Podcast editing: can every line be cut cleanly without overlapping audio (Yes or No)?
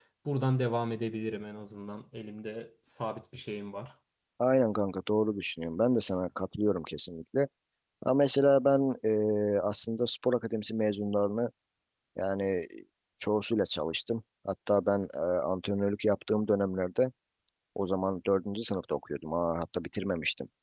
Yes